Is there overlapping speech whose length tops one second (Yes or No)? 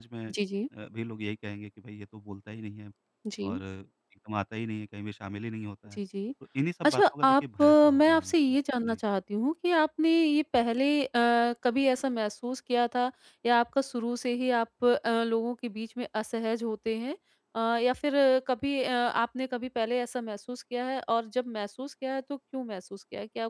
Yes